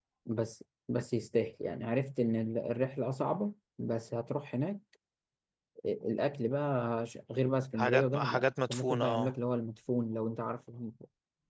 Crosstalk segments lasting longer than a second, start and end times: 7.8-9.3

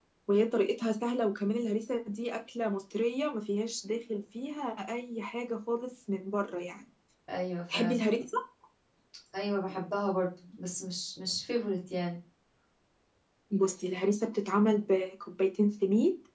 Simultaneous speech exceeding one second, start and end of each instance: none

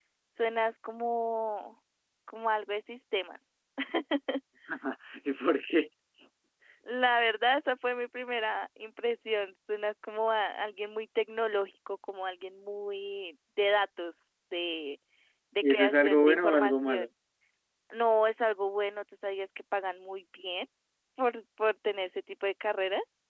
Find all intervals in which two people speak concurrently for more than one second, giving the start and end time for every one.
15.6-17.0

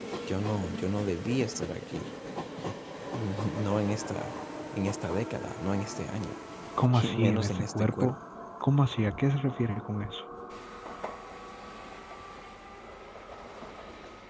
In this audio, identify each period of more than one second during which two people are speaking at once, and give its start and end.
6.9-8.1

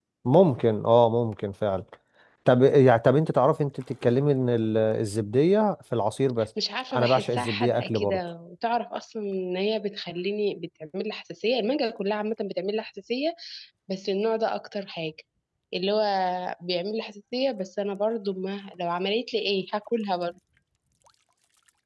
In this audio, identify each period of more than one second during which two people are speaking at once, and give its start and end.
7.0-8.2

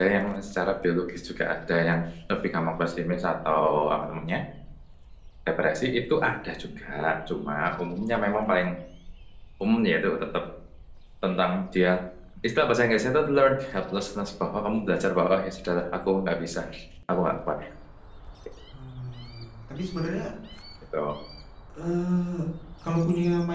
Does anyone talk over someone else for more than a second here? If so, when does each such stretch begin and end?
none

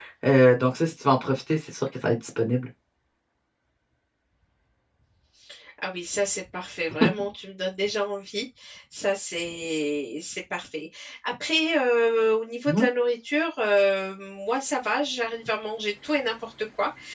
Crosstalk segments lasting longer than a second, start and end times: none

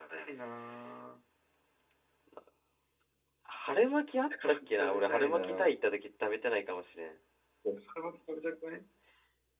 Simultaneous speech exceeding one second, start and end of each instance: 4.5-5.7

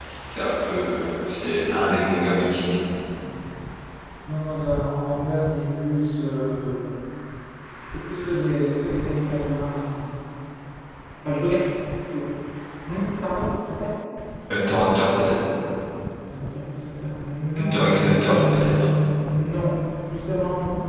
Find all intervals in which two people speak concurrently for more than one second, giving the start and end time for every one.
17.6-18.9

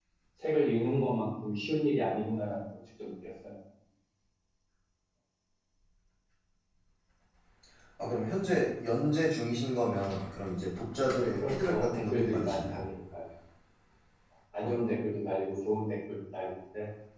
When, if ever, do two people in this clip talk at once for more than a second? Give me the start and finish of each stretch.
11.3-12.8

